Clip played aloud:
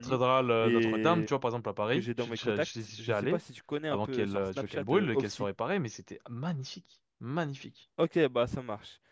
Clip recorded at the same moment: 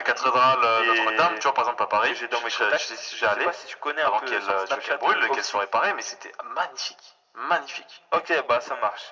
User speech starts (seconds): none

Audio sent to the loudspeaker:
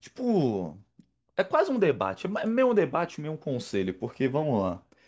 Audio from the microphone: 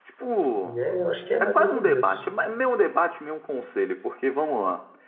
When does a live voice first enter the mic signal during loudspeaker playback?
0.6 s

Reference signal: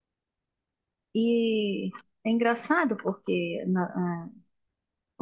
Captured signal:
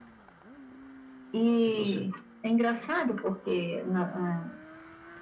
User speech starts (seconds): 1.6 s

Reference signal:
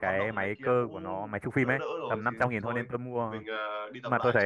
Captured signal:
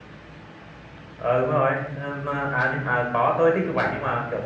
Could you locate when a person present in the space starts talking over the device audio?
1.2 s

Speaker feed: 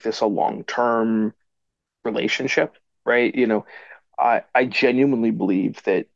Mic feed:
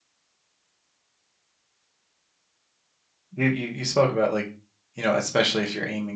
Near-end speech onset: 3.3 s

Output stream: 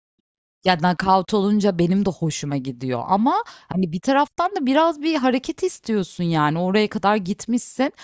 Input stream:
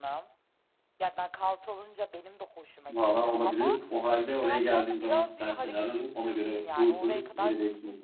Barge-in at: 2.9 s

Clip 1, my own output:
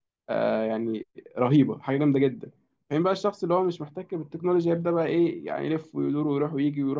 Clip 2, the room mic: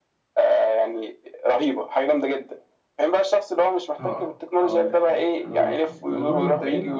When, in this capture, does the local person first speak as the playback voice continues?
4.0 s

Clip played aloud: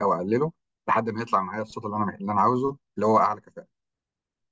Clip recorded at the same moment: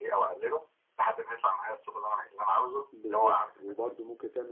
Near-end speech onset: 2.9 s

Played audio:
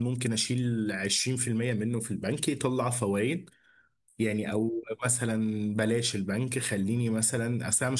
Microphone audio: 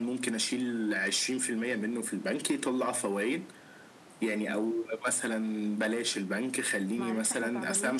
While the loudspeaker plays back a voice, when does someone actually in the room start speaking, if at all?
7.0 s

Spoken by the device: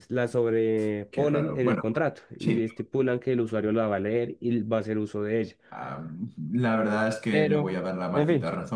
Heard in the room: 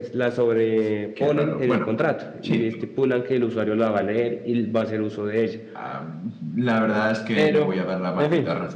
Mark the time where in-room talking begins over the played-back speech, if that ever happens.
none

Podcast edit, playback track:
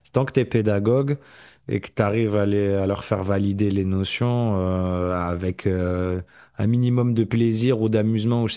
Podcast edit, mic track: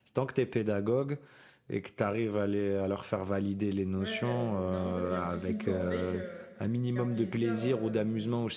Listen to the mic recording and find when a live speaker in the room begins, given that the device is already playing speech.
4.0 s

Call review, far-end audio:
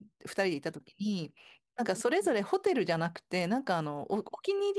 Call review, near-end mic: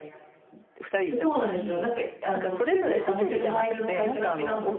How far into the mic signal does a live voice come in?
1.2 s

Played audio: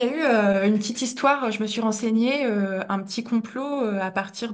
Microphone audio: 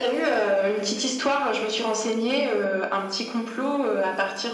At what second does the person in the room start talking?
none

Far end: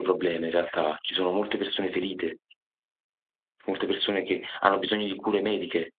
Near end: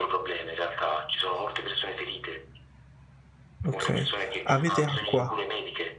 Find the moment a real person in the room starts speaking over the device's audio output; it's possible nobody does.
3.6 s

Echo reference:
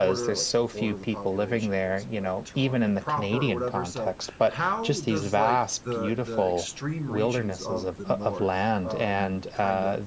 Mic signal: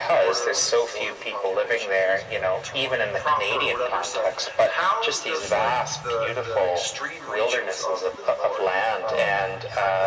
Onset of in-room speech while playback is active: none

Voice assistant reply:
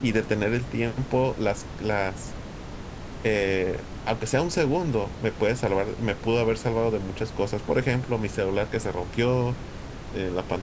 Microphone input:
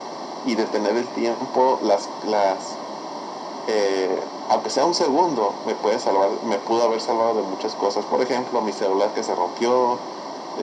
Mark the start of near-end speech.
none

